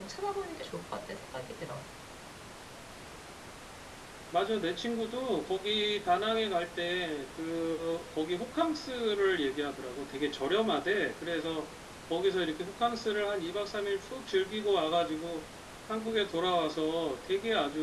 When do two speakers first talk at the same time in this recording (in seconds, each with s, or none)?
none